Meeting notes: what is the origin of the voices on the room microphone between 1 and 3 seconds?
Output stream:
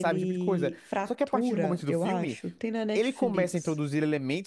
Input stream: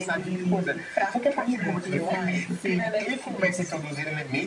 both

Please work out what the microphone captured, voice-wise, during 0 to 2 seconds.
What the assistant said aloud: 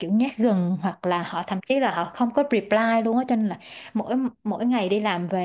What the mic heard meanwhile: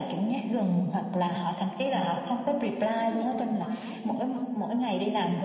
echo only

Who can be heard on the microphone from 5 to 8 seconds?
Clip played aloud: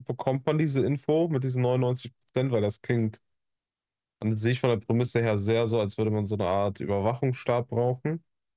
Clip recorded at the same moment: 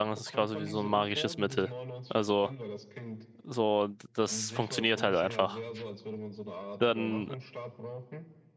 both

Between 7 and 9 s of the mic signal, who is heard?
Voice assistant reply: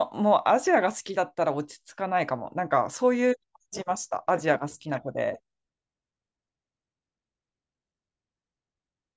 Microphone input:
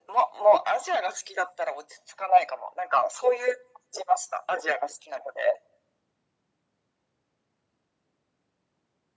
neither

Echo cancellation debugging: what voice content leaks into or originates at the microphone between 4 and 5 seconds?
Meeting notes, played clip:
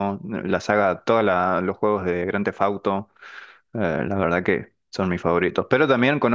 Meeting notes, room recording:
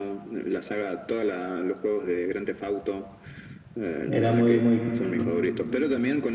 both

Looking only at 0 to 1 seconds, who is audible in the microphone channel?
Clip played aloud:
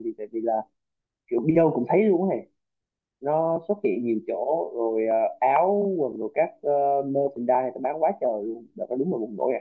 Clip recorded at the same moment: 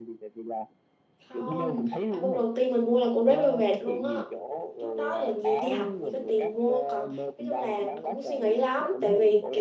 echo only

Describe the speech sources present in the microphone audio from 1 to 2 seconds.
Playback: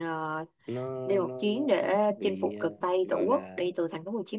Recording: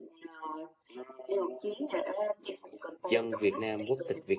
echo only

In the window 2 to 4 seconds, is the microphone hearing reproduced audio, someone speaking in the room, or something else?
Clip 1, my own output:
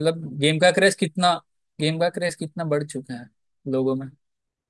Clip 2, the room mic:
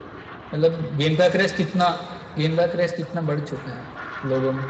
echo only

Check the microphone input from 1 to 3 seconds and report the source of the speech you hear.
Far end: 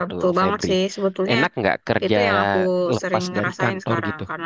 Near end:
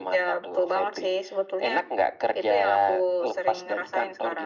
echo only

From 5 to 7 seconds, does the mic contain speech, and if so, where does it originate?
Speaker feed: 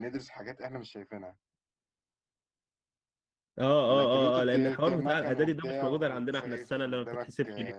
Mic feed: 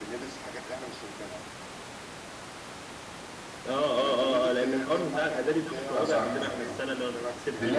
both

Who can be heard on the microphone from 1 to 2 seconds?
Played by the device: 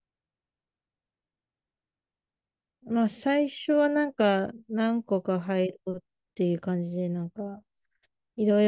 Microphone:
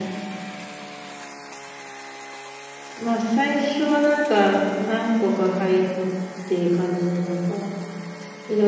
neither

